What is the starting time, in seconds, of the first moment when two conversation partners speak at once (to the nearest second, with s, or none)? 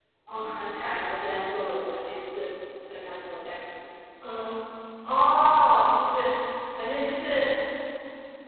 none